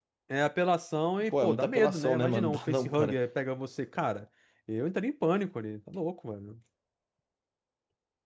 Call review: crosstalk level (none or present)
present